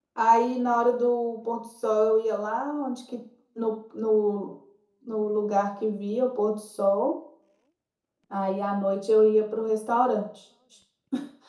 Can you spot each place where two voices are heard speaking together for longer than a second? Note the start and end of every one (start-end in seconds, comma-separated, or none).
none